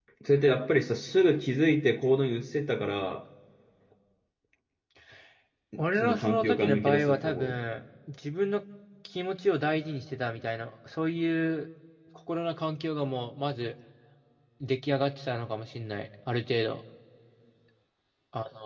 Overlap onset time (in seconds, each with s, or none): 6.0 s